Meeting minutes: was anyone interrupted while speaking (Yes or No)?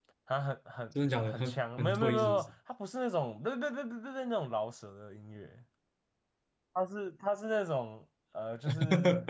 Yes